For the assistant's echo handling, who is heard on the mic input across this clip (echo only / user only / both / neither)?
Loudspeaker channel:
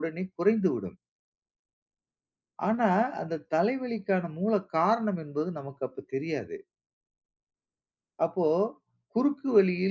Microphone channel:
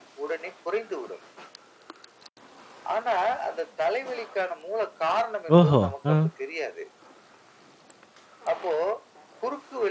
both